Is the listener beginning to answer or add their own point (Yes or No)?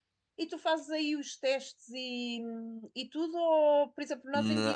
No